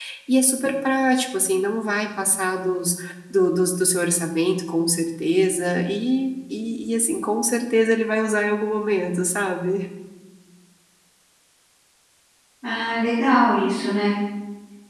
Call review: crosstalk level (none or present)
none